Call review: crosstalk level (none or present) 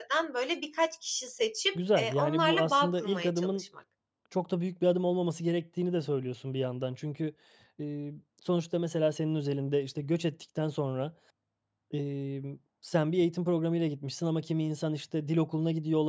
present